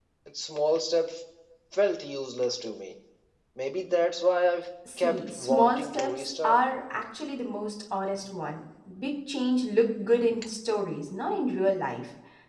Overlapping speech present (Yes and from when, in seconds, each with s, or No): Yes, from 4.8 s